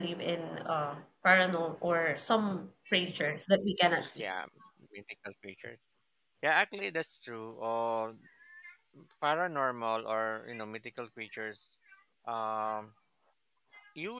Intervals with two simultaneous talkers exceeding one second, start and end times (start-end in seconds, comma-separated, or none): none